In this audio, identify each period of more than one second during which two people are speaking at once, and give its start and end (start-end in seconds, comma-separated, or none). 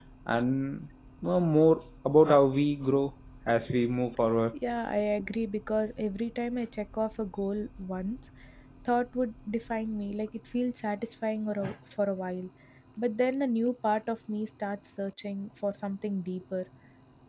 none